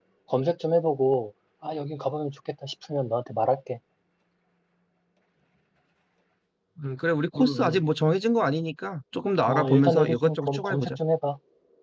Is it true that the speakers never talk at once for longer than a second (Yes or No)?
No